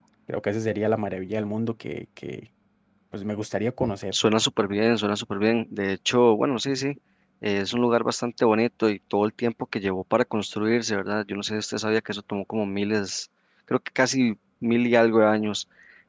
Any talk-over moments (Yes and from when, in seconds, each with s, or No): No